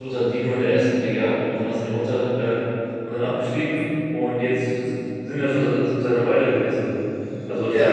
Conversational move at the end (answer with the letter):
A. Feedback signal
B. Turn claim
A